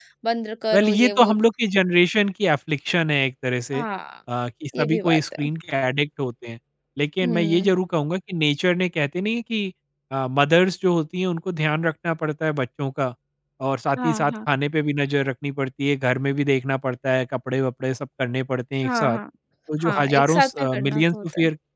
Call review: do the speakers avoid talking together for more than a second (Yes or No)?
No